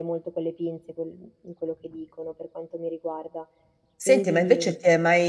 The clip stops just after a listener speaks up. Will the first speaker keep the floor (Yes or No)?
No